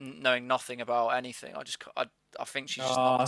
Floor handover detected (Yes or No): Yes